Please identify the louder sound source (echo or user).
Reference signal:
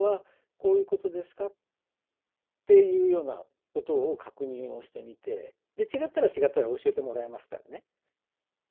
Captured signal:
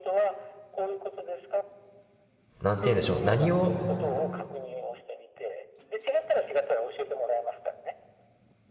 user